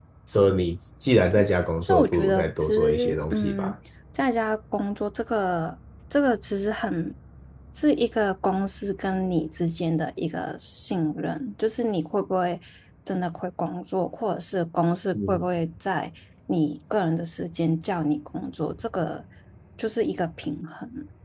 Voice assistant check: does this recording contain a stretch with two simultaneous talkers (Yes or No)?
Yes